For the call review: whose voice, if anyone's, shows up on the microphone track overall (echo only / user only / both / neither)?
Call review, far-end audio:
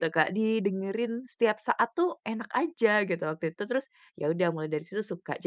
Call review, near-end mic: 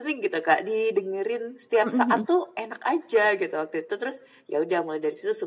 both